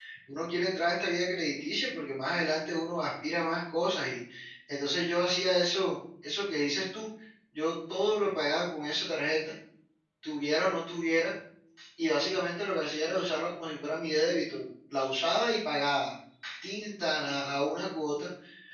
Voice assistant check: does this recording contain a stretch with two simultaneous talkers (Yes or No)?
No